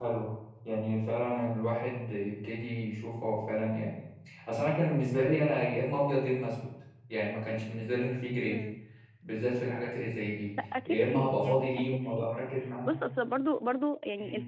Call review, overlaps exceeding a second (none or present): present